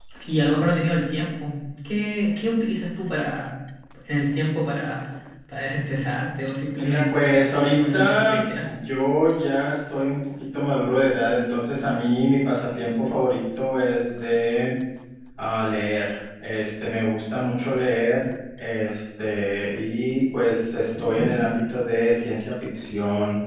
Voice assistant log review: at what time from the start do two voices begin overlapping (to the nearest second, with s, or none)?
7 s